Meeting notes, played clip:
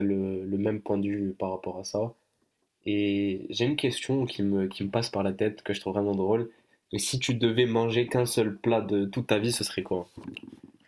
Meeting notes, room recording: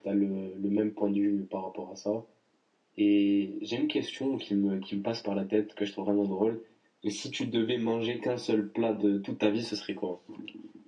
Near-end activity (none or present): none